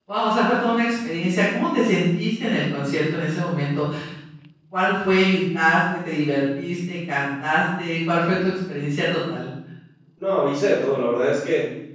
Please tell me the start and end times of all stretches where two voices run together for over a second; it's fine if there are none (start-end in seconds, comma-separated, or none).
none